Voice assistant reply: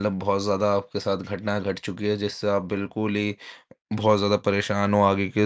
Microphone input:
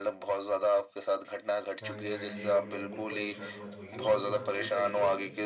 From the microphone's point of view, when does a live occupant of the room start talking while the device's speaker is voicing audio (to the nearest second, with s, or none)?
2 s